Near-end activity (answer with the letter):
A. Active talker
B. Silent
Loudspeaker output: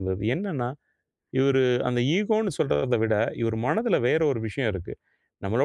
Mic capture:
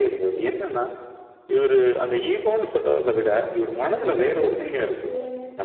A